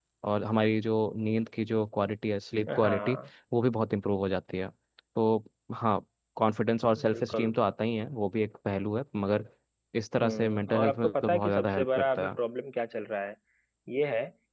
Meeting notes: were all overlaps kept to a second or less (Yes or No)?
No